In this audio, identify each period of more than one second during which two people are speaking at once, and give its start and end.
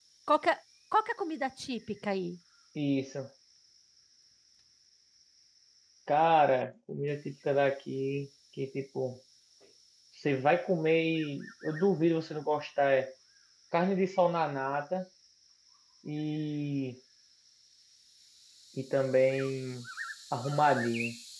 none

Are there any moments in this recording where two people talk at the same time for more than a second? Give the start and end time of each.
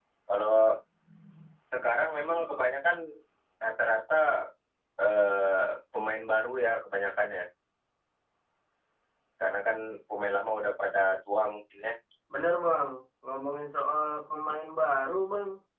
none

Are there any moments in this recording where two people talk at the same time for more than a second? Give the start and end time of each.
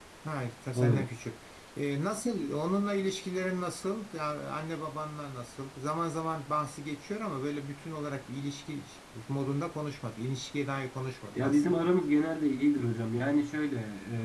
none

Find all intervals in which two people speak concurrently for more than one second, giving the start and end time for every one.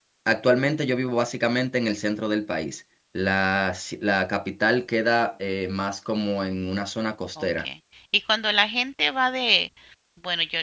none

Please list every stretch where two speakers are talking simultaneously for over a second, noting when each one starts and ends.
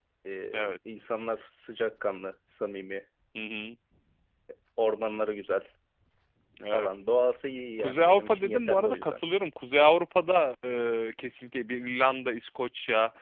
7.8-9.2

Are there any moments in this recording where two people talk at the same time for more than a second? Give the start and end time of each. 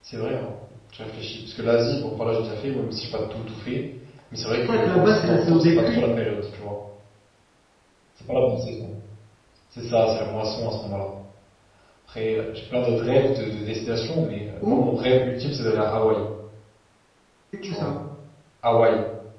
4.7-6.0

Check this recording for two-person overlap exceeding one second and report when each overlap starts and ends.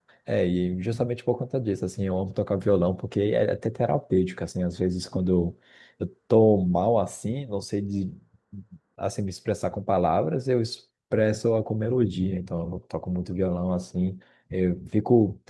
none

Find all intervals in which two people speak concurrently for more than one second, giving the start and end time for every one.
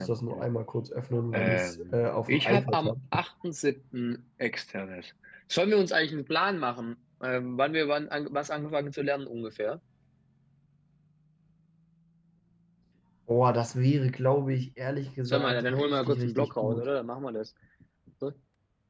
1.3-2.9, 15.2-16.8

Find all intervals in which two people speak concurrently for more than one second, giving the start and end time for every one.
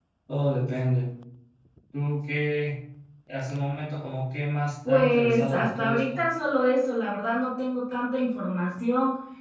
4.8-6.2

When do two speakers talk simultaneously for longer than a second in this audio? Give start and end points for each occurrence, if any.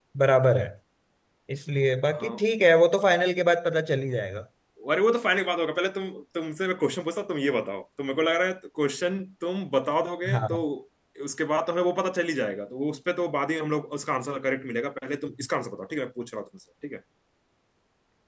none

